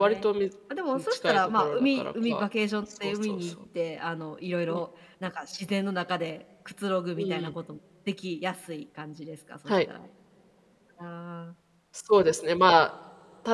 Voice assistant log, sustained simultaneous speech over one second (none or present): present